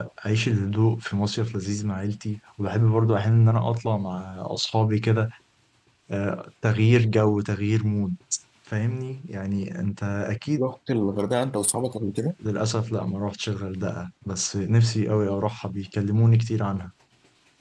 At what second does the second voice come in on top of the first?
none

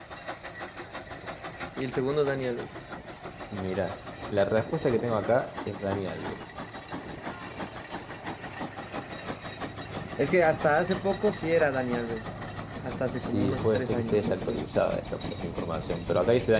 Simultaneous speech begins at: 13.3 s

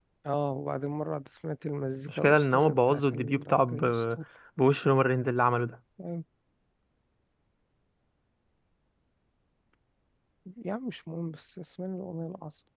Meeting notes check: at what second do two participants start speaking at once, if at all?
2.1 s

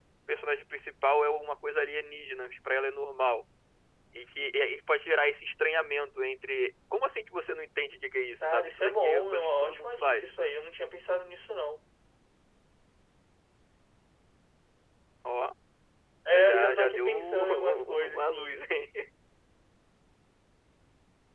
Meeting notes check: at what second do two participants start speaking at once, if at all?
8.5 s

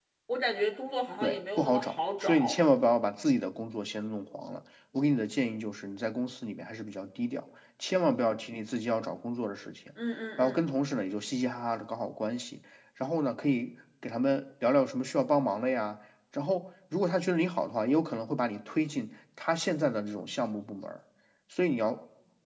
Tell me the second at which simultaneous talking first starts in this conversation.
1.2 s

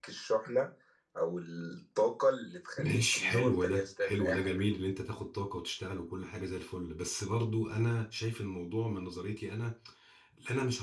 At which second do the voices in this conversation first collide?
2.8 s

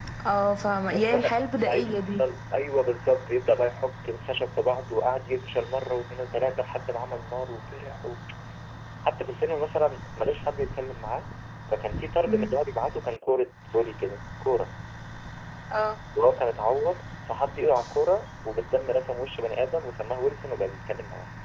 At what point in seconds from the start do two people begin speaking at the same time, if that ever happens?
0.9 s

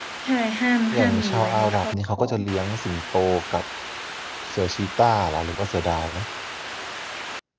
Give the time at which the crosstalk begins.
0.9 s

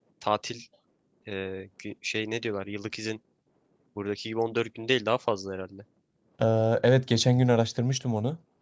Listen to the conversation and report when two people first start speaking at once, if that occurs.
none

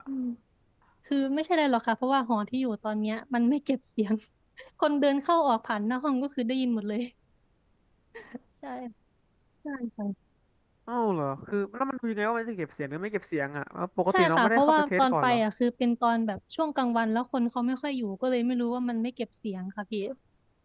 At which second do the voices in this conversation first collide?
14.1 s

